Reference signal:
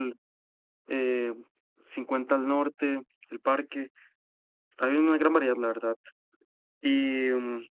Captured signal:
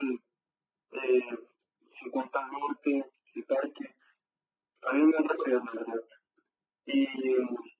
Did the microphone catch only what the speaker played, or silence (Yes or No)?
Yes